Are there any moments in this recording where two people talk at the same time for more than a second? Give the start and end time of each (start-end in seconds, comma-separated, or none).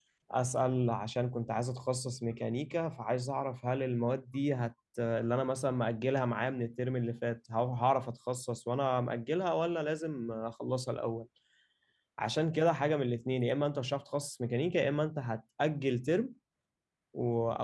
none